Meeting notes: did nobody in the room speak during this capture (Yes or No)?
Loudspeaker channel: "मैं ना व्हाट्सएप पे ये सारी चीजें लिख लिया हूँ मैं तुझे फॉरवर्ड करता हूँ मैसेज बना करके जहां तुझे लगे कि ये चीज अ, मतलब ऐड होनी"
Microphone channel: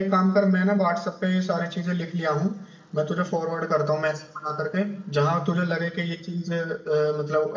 Yes